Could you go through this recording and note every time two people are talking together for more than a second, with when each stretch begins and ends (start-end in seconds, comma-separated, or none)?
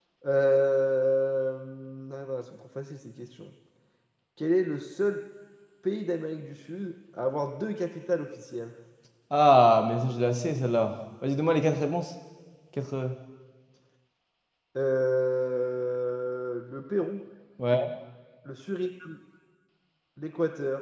none